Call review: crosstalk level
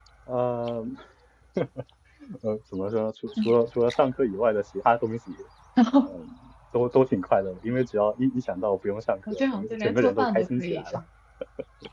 present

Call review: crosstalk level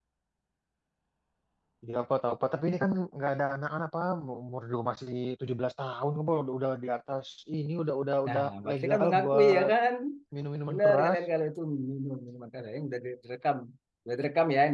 present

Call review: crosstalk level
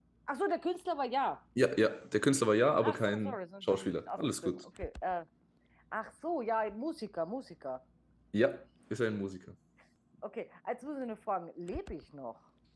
present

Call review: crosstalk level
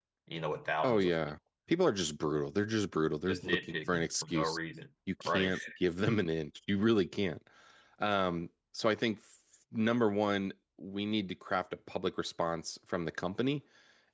present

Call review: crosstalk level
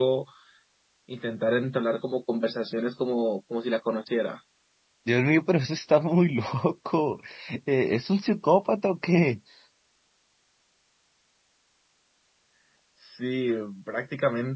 none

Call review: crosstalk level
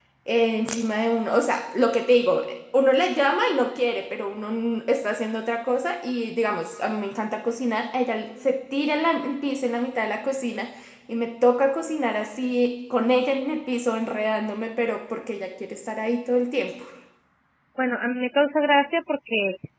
none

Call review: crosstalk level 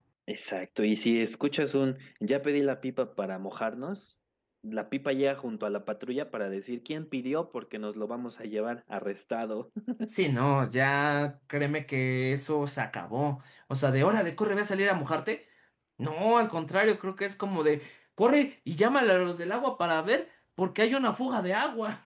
none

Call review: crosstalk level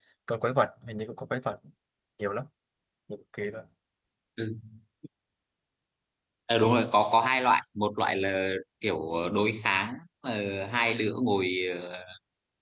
none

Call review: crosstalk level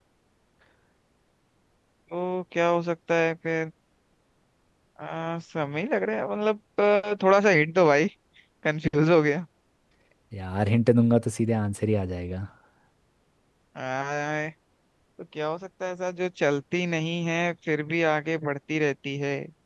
none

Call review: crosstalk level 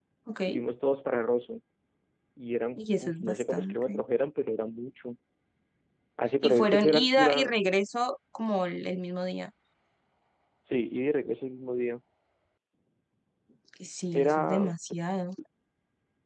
present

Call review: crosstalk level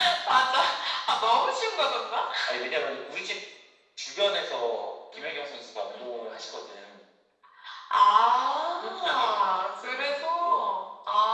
present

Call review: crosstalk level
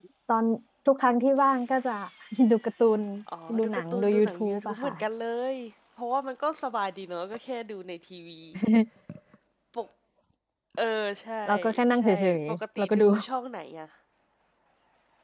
present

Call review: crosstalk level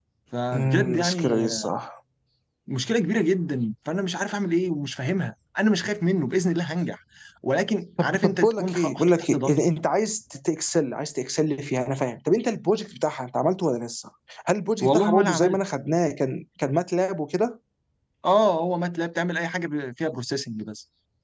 present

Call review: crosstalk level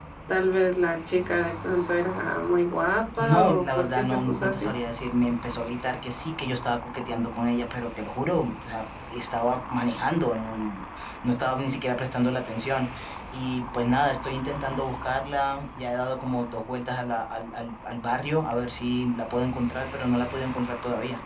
present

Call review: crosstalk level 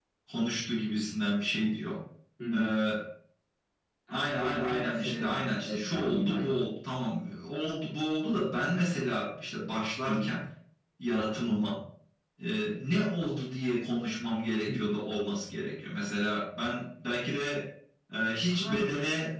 present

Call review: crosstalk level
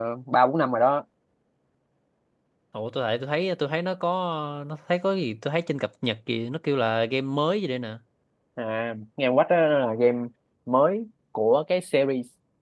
none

